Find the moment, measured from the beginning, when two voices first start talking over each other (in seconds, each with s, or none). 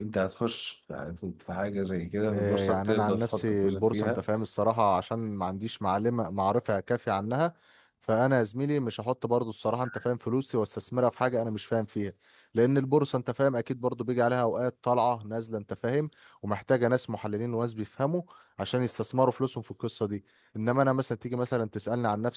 2.3 s